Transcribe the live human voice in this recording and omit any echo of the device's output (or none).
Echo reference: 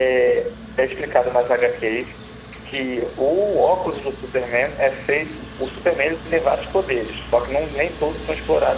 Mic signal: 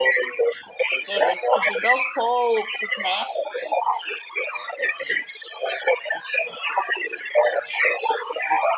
e aí vai descobrindo aos poucos, né?